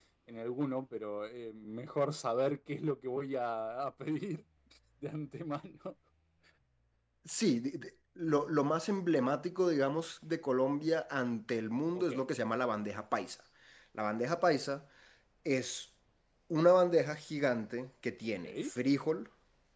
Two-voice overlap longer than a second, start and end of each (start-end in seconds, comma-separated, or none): none